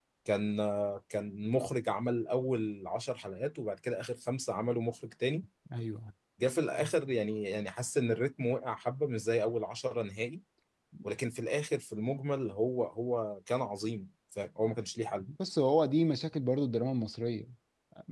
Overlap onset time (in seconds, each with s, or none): none